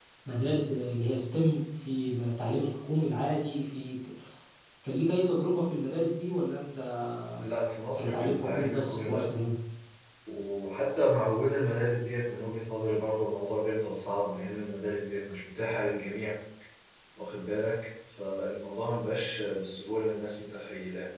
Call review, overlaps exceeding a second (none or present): present